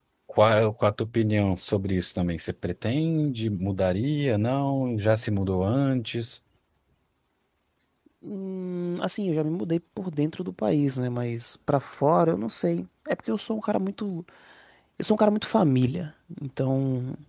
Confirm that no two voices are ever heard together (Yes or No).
Yes